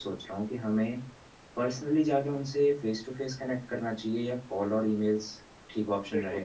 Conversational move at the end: taking over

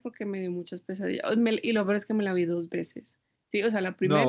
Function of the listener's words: listening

